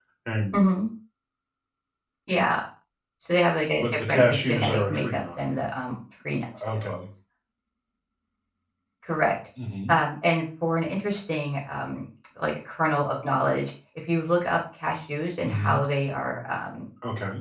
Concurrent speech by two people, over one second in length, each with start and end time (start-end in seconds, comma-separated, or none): 3.8-5.4